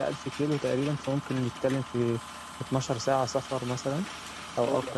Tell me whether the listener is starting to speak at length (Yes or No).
Yes